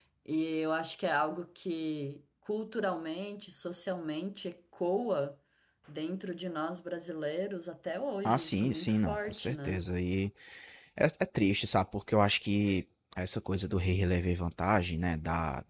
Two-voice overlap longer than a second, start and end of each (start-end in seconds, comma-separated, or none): 8.2-9.8